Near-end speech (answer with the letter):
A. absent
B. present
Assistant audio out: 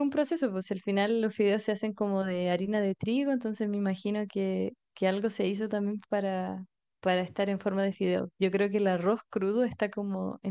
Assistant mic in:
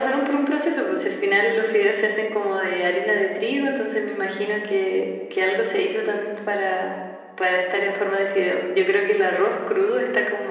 A